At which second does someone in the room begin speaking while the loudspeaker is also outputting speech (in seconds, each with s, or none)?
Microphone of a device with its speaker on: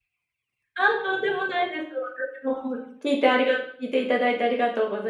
0.8 s